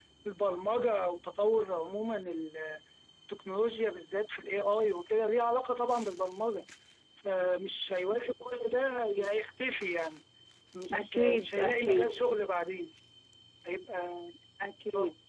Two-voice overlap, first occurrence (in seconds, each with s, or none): 10.9 s